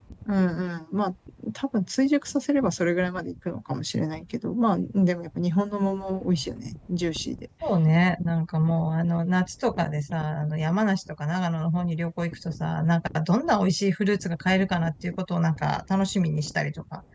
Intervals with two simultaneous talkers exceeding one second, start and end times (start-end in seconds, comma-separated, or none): none